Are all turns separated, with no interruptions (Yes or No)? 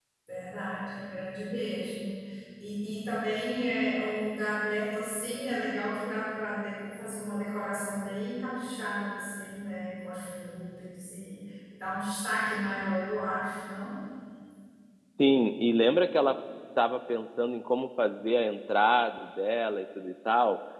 Yes